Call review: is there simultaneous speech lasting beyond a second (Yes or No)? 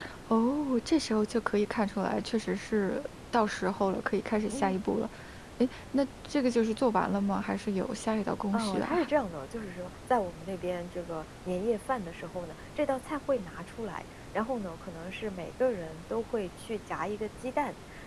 No